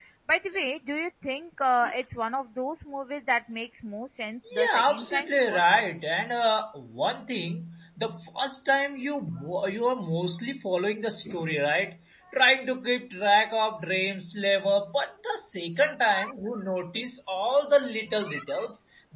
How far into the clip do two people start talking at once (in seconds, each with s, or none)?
4.6 s